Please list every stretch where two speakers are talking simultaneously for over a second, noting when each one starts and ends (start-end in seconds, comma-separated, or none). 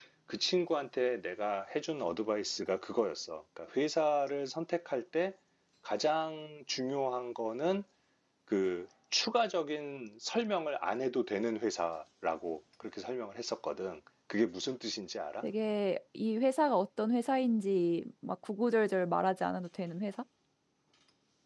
none